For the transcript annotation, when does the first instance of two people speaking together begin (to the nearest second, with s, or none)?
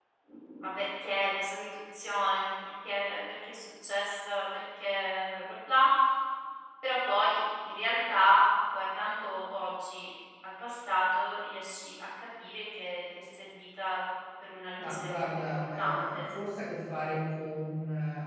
15 s